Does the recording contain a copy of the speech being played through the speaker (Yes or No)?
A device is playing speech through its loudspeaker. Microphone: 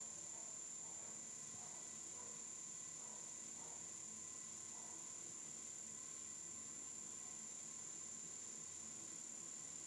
No